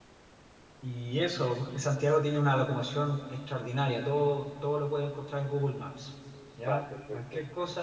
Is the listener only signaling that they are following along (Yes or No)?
Yes